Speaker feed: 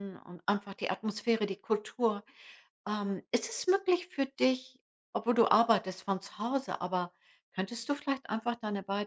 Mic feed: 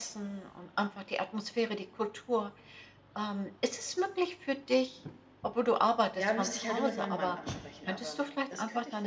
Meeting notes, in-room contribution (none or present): present